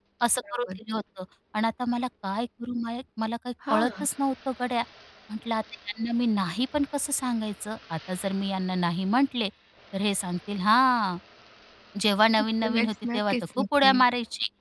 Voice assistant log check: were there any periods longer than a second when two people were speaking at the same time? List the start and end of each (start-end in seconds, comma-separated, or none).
12.8-13.9